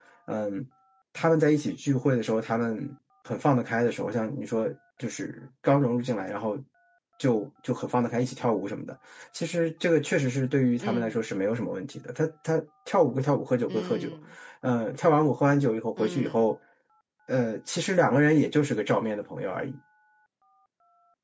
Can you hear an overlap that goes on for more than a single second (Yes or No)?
No